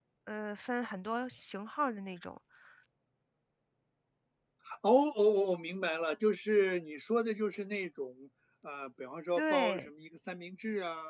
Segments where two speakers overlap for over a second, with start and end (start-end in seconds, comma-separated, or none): none